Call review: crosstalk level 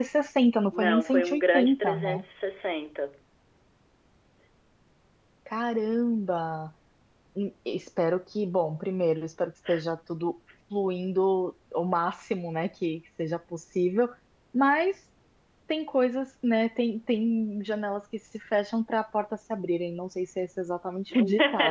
present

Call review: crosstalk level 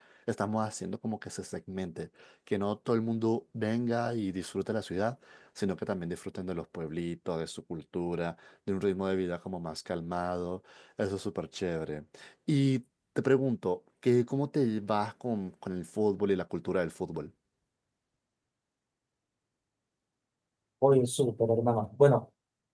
none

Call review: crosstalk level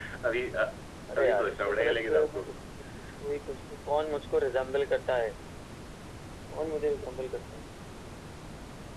present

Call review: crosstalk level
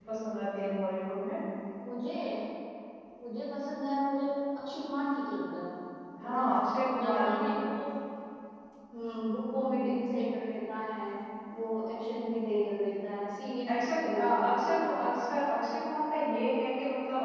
present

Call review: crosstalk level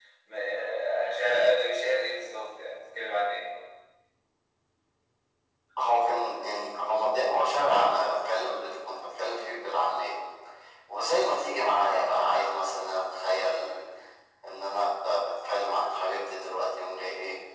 none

